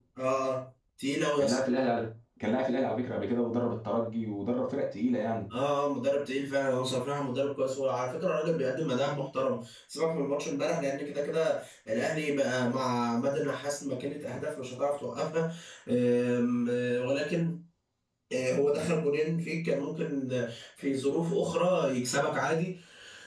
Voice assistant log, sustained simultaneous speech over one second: none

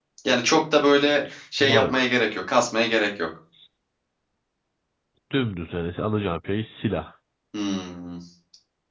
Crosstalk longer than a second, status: none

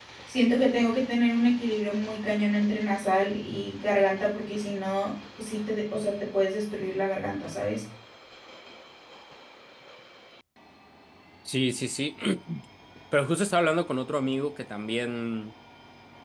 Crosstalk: none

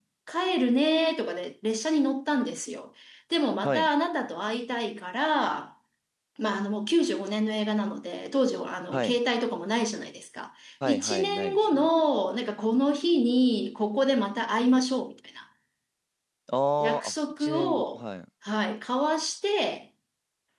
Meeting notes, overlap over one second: present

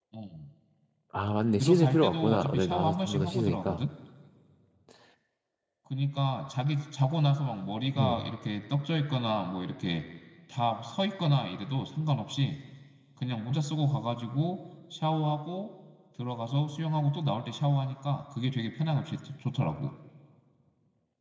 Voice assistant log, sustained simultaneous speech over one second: present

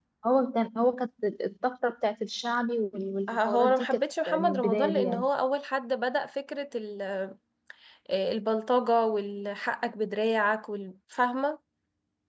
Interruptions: present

